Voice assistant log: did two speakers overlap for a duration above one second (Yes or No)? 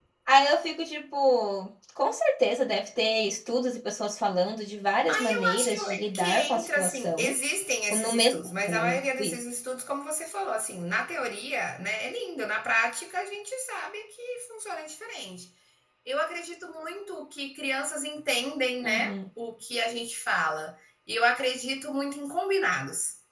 Yes